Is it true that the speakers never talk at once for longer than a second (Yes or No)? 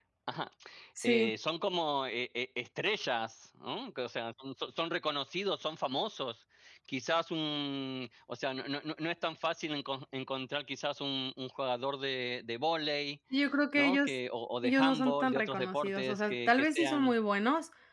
No